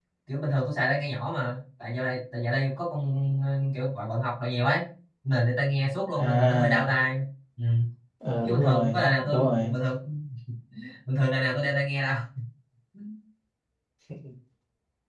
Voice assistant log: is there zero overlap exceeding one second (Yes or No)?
No